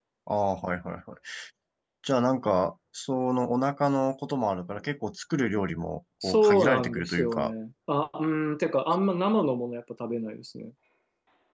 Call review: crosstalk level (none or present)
present